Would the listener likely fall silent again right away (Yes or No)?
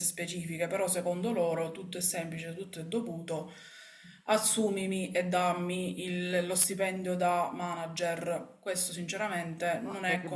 No